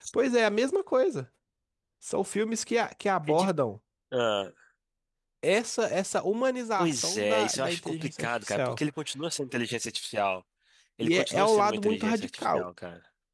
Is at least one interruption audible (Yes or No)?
Yes